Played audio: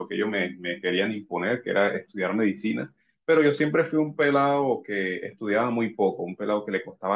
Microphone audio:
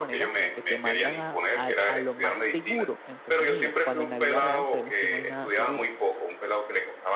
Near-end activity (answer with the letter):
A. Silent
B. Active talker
B